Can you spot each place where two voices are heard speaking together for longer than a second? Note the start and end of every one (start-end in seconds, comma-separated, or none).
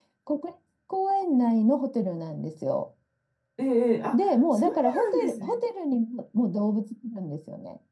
4.1-5.6